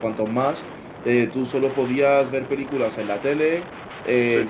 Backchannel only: Yes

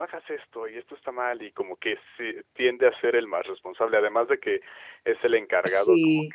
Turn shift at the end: No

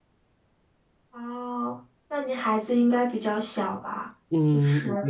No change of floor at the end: No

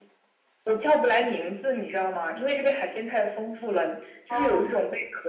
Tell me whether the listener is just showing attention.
Yes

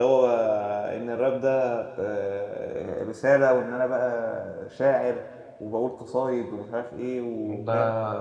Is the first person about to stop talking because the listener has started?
Yes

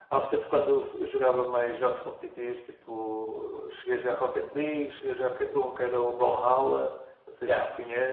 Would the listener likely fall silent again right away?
No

